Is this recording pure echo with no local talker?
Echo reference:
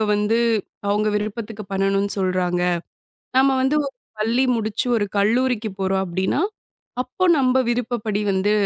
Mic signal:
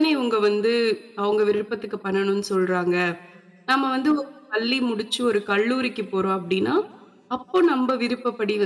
Yes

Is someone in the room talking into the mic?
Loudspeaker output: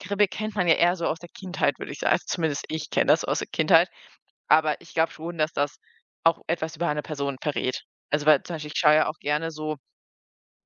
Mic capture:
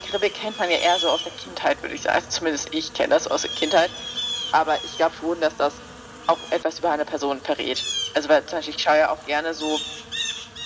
No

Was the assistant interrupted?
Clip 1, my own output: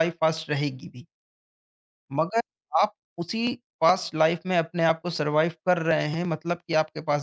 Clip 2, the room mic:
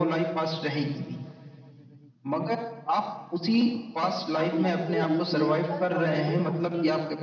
Yes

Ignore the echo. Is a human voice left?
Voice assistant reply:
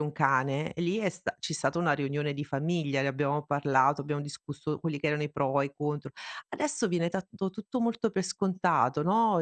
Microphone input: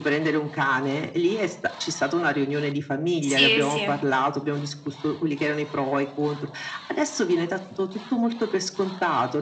Yes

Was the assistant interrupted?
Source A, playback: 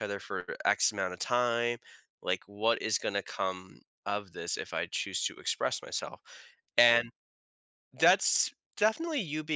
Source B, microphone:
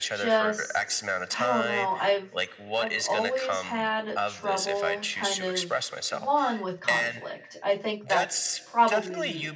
Yes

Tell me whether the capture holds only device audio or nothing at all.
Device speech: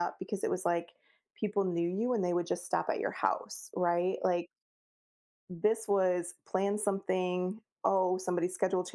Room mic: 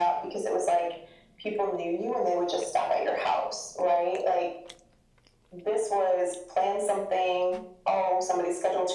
Yes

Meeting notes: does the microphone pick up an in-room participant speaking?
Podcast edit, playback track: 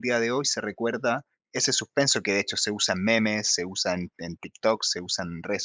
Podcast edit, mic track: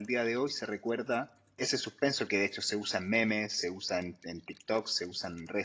No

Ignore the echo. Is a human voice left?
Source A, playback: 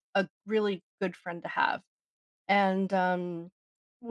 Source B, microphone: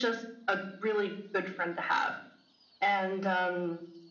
No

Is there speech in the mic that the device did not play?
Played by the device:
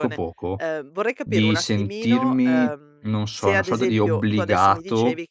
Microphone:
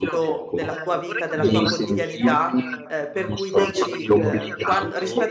Yes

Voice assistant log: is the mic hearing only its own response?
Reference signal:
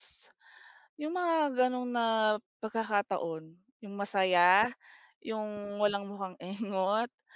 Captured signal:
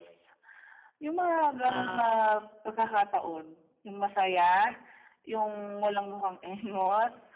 No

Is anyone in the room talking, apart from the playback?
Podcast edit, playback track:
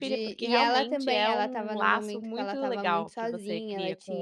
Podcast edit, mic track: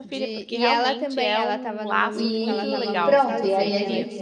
Yes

